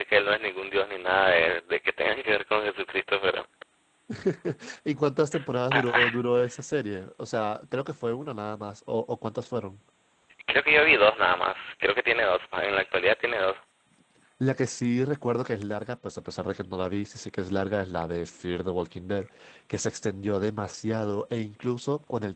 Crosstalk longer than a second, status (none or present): none